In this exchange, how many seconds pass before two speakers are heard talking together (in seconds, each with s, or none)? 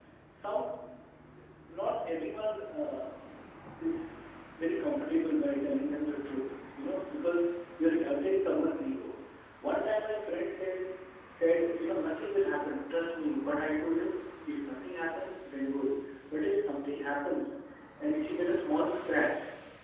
none